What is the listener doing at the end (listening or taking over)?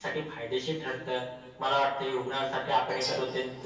listening